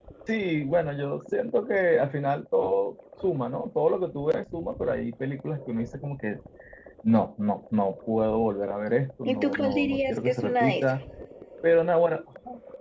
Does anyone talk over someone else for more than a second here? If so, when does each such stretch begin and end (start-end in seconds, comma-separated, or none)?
9.2-10.9